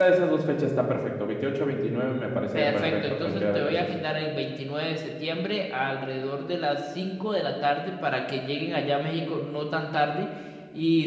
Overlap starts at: 2.5 s

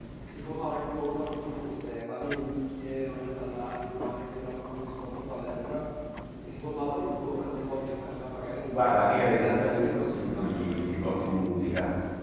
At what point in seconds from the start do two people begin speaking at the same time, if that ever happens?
8.7 s

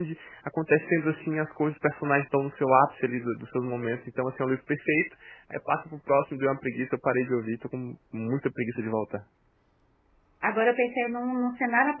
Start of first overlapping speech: none

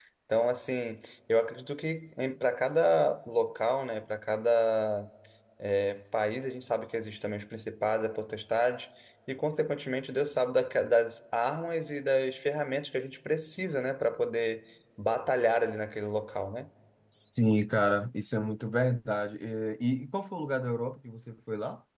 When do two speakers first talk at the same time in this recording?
none

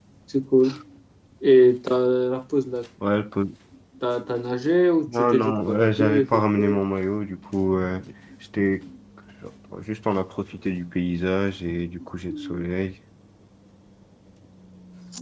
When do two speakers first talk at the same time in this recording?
5.1 s

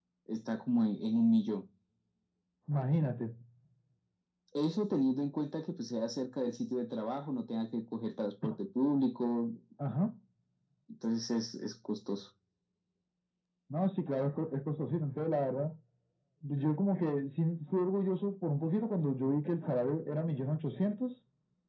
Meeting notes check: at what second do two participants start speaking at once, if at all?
none

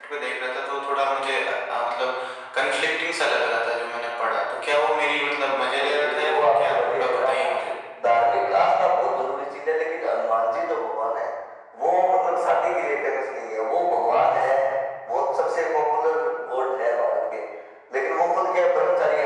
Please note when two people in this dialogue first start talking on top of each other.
5.5 s

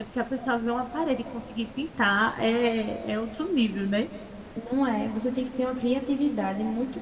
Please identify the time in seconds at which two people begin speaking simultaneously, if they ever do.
none

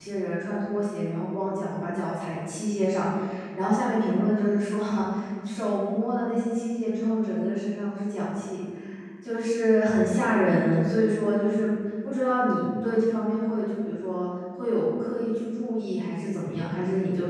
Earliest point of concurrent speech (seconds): none

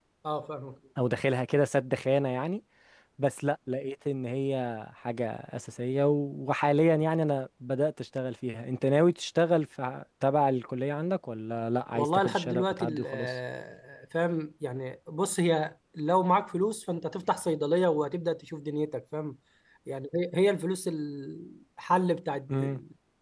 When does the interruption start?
11.9 s

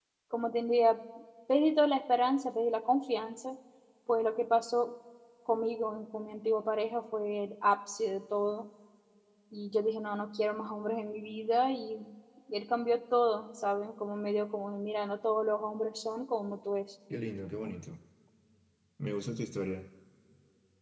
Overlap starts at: none

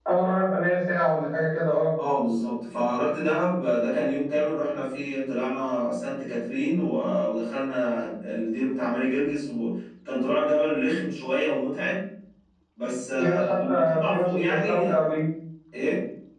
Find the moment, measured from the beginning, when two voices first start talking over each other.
13.2 s

